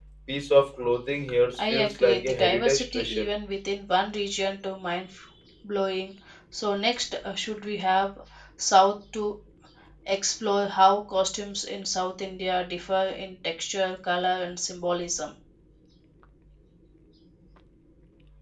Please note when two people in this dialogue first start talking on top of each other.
2 s

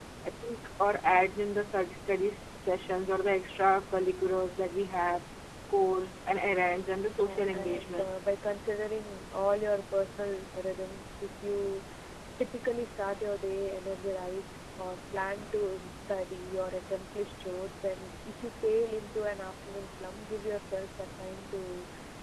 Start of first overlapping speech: 7 s

